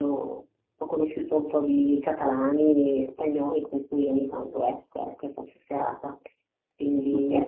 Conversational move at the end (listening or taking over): listening